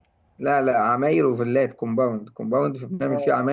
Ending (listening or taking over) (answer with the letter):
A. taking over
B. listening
B